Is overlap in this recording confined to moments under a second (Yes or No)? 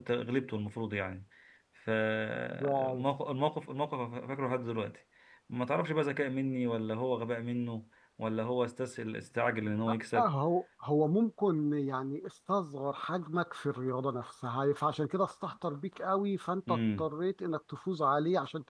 Yes